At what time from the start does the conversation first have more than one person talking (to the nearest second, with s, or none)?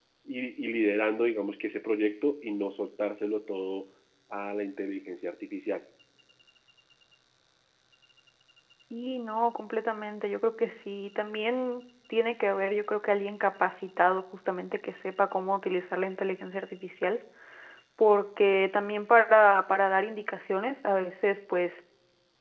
none